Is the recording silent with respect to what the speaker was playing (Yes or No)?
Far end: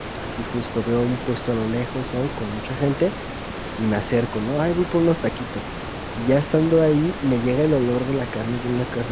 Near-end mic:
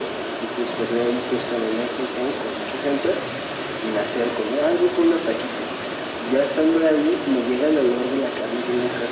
No